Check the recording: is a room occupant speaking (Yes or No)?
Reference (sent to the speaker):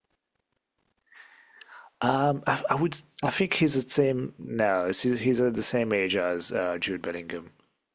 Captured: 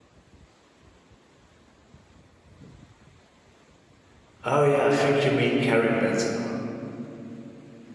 Yes